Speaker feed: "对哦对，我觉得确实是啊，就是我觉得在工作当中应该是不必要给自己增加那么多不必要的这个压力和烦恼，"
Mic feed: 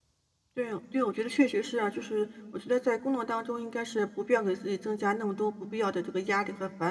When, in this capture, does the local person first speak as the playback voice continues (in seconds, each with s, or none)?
none